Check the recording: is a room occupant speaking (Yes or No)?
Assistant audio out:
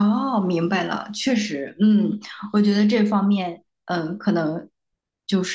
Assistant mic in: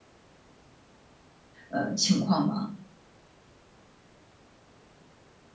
Yes